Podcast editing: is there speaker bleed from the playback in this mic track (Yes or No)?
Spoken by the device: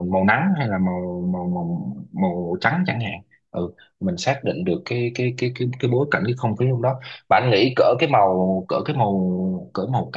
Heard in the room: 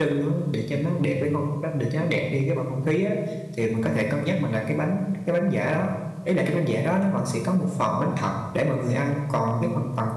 No